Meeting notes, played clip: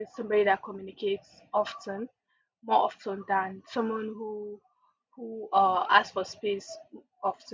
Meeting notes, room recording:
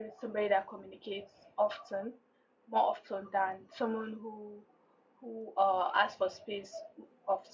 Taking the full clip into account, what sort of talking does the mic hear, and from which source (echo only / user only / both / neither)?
echo only